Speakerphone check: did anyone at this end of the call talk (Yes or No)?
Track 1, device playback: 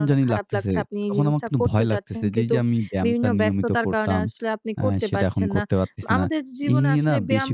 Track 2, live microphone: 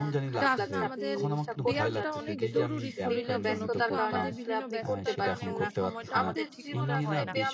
Yes